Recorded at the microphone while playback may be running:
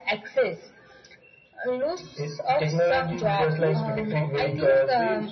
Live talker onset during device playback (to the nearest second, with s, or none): 4 s